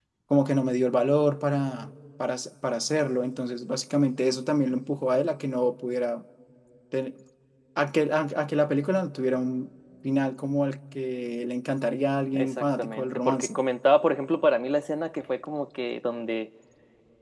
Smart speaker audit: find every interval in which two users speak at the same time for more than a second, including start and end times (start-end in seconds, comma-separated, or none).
12.3-13.6